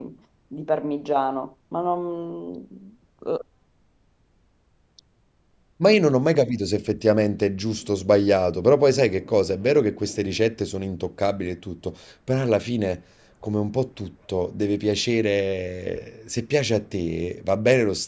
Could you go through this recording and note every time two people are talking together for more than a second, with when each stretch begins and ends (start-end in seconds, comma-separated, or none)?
none